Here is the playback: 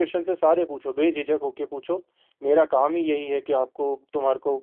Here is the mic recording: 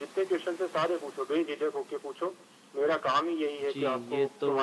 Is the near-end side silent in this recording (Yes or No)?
No